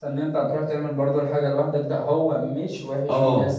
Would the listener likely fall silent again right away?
Yes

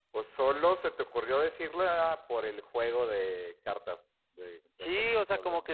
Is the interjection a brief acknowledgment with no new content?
No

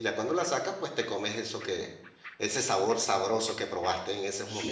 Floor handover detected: Yes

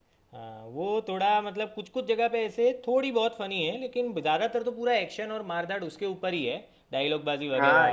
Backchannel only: No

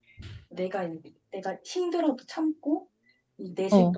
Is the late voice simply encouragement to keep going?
Yes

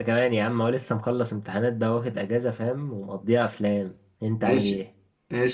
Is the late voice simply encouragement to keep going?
No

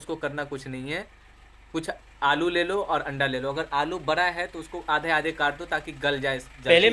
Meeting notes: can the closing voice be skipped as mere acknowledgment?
No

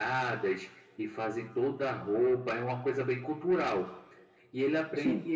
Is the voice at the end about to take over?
No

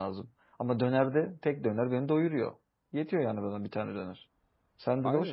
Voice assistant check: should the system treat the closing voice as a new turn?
Yes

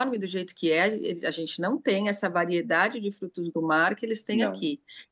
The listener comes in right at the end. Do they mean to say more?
No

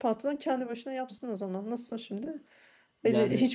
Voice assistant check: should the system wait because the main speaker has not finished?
Yes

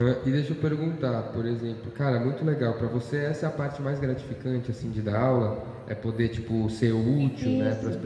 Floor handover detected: No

